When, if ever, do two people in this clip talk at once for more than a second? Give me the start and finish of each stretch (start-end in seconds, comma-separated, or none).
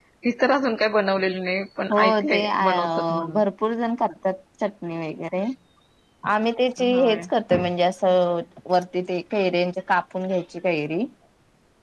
1.9-3.4